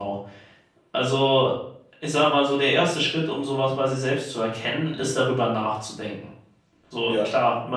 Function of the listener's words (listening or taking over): listening